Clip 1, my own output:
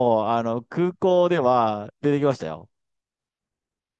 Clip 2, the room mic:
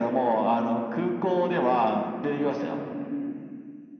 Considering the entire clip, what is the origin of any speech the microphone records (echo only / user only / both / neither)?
both